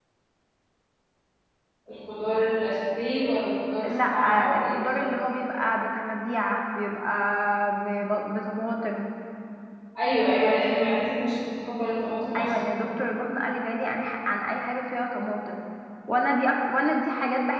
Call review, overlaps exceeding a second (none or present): present